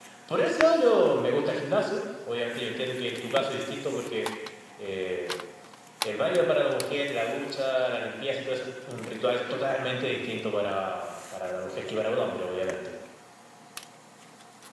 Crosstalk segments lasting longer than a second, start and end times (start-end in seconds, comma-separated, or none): none